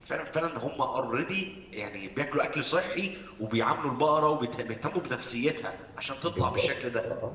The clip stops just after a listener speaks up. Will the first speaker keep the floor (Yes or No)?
No